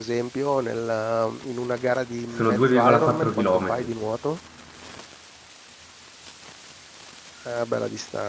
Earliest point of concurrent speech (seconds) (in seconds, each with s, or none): 2.2 s